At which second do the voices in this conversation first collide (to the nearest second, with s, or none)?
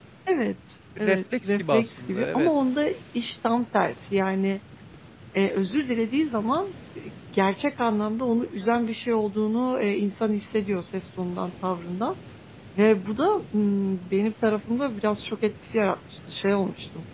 1 s